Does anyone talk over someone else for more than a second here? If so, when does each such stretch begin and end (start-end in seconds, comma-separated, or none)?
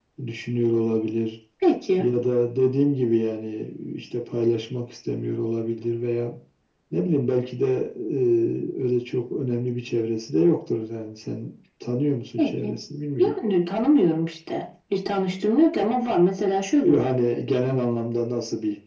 none